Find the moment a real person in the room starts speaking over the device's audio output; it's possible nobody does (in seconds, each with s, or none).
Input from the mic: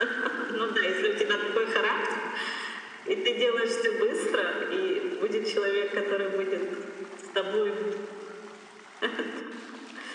none